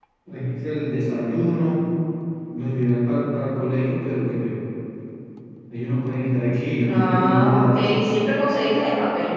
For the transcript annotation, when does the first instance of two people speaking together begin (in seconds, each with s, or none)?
6.8 s